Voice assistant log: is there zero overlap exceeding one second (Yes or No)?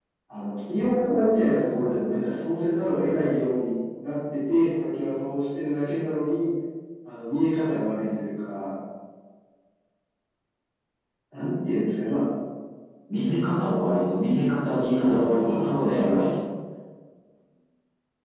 No